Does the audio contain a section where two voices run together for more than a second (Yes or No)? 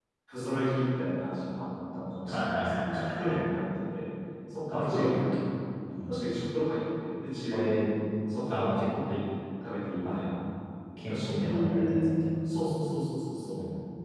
Yes